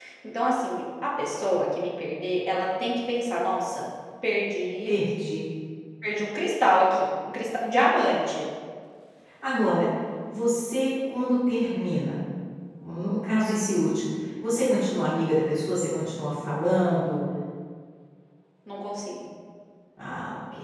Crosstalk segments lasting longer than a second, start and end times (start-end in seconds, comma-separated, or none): none